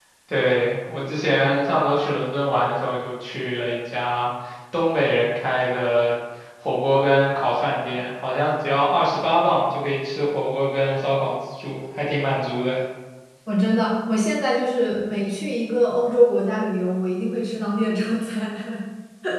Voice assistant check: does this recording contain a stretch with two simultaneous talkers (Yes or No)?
No